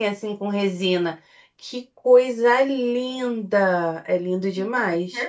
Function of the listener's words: taking over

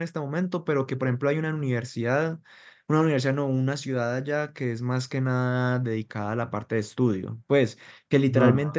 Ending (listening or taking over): listening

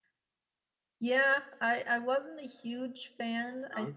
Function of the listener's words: listening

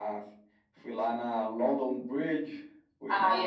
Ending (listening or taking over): taking over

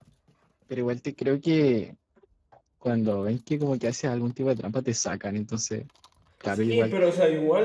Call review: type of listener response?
taking over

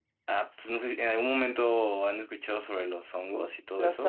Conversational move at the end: taking over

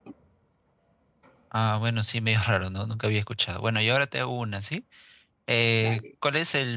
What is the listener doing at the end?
listening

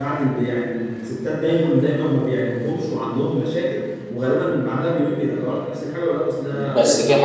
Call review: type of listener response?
taking over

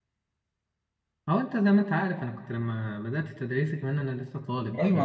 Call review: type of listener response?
taking over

